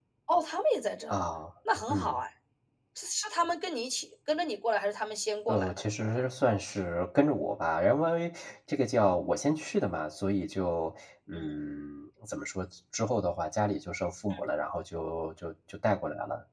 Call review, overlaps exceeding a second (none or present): none